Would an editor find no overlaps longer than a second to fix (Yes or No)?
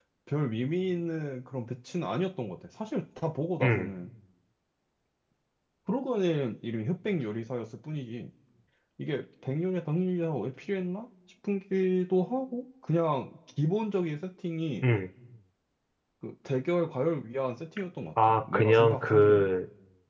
No